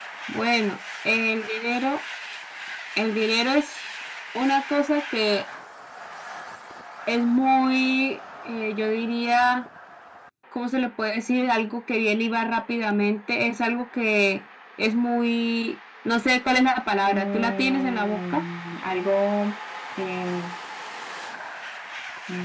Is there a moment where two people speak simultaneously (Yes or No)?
Yes